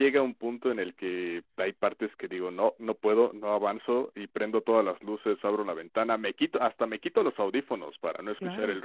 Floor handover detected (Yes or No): No